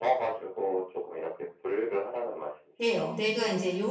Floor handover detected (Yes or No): Yes